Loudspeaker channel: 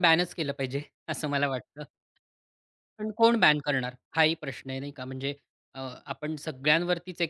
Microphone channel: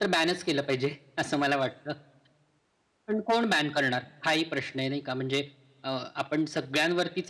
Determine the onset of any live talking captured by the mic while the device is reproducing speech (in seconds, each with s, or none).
none